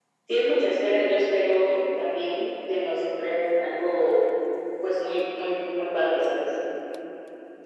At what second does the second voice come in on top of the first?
none

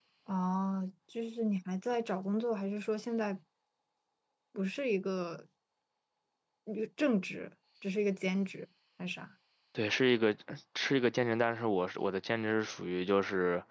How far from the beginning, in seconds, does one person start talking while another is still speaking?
none

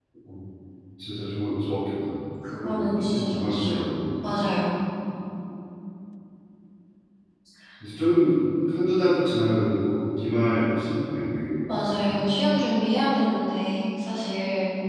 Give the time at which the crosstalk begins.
2.6 s

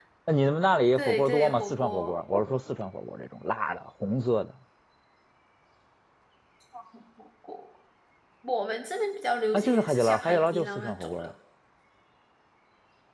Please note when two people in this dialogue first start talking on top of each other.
0.9 s

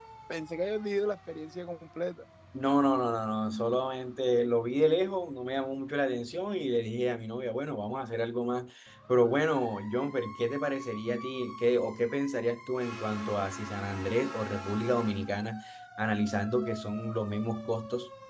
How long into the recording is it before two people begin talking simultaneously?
none

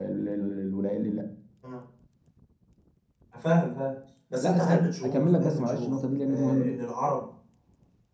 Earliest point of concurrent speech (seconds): 4.4 s

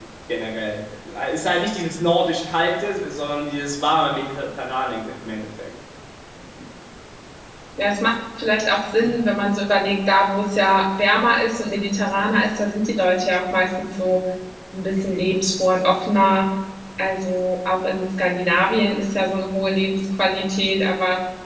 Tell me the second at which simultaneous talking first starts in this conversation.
none

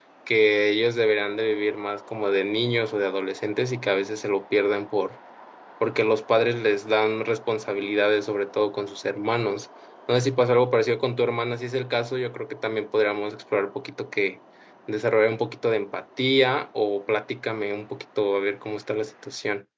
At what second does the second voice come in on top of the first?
none

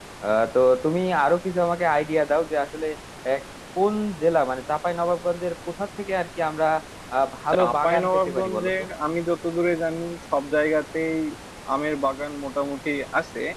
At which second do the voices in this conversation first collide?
7.5 s

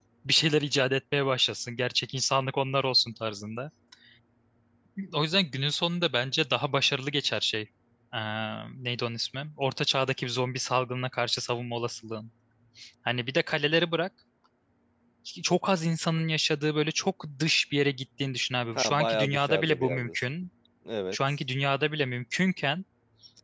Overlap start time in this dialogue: 18.7 s

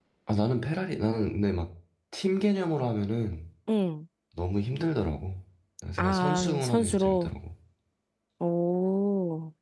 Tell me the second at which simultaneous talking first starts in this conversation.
6.0 s

